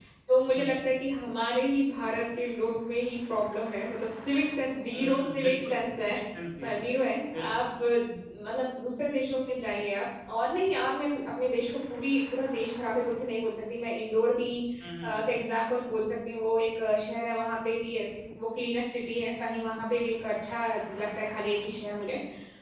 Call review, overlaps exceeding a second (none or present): present